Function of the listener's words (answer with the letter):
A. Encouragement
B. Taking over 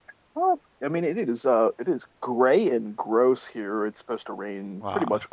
A